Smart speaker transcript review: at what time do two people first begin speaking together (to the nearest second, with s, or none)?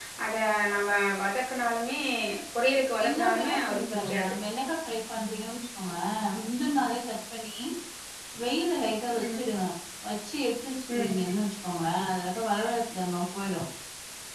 3 s